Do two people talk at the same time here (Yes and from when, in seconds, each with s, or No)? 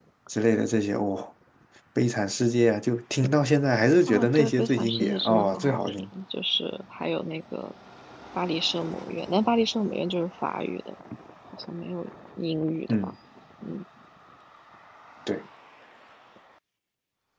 Yes, from 4.1 s